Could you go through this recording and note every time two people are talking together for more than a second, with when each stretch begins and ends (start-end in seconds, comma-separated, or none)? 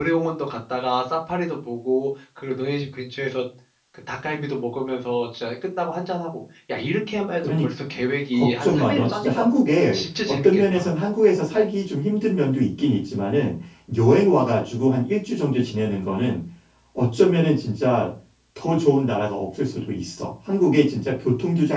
8.3-10.9